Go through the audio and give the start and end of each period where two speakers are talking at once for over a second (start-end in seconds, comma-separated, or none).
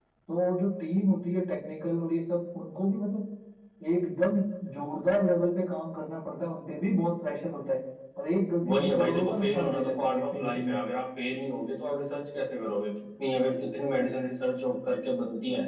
8.6-10.8